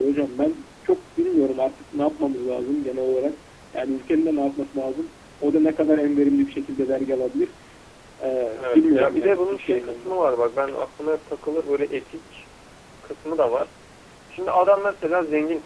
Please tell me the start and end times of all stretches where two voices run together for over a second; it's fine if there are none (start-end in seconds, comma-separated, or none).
8.6-10.1